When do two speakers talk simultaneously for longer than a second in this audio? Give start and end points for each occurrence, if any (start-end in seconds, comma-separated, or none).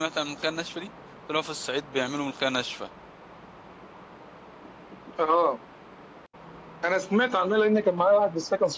none